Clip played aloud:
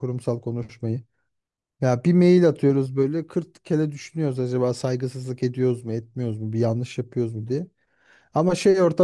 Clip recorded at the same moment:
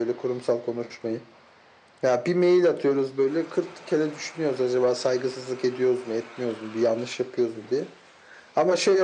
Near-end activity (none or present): none